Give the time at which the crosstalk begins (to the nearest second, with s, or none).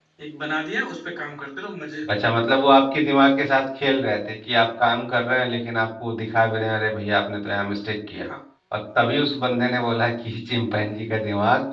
none